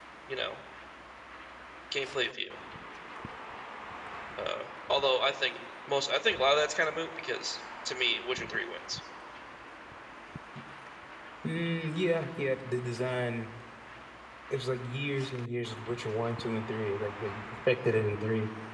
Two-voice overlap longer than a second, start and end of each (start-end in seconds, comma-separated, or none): none